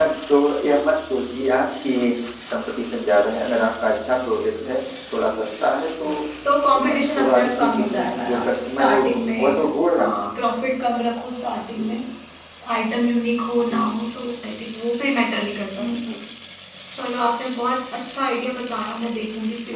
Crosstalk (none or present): present